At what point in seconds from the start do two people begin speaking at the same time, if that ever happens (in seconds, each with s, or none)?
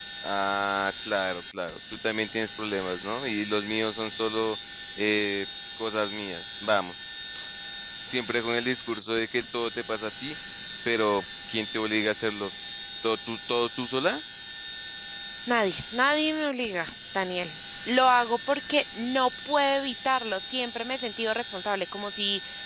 none